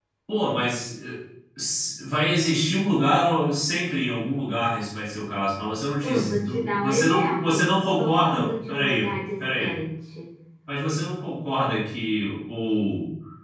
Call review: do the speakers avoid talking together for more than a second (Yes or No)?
No